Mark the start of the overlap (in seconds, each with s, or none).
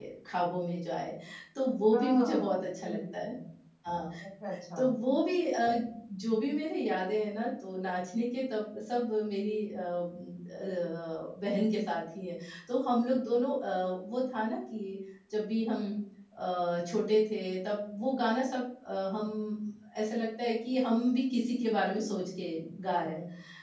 1.9 s